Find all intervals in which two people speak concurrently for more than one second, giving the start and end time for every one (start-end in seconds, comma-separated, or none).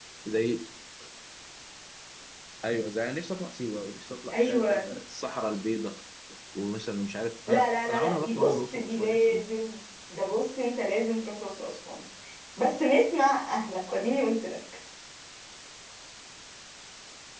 7.5-9.5